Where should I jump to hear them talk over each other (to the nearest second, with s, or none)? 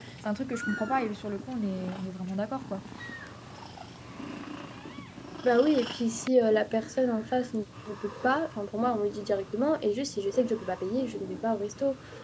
none